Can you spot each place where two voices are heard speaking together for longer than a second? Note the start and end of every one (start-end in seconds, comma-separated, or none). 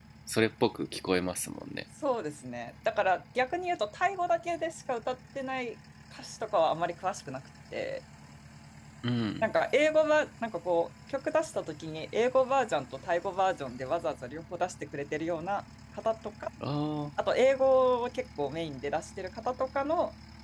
none